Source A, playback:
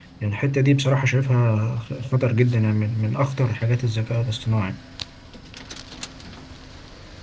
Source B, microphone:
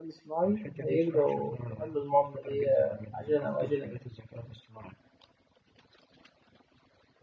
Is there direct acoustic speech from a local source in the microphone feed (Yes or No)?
Yes